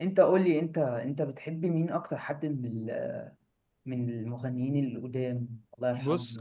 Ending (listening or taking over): taking over